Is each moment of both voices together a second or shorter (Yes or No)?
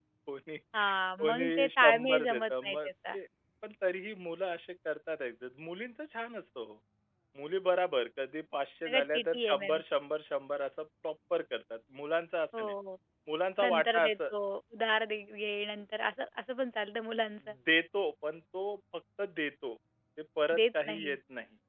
No